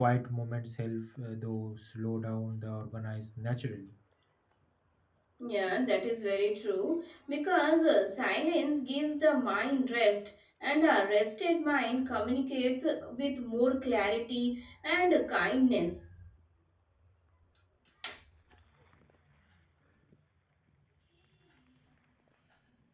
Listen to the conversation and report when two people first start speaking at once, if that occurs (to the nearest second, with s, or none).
none